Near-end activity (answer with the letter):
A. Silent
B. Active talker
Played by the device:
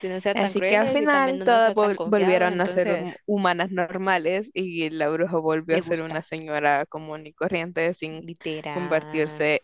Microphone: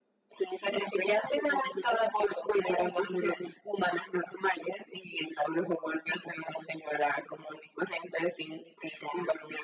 A